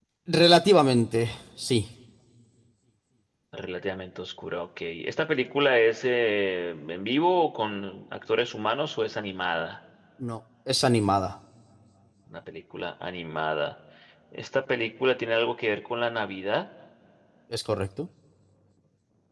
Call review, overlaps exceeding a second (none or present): none